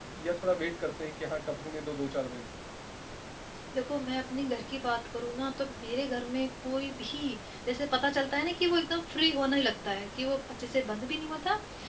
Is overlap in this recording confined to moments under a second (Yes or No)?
Yes